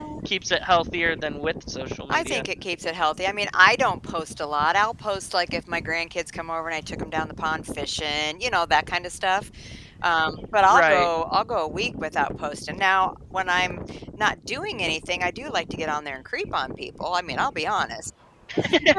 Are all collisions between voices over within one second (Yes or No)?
Yes